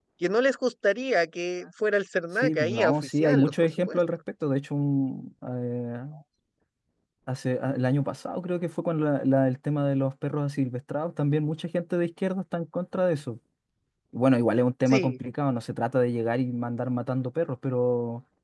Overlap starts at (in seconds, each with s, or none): 2.4 s